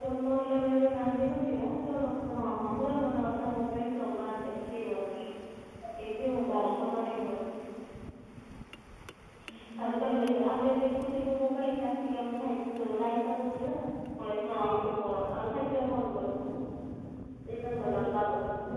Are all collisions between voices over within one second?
Yes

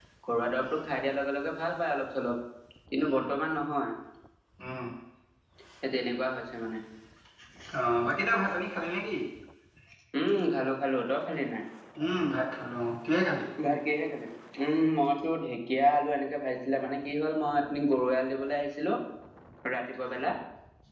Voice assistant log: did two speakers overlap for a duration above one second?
No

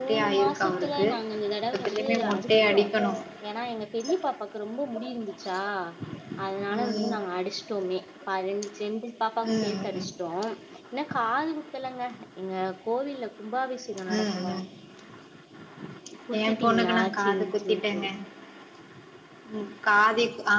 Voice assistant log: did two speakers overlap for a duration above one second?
Yes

